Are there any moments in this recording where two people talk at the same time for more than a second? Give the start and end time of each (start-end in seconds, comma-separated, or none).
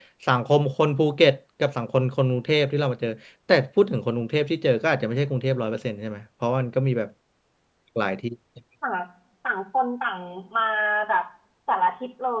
none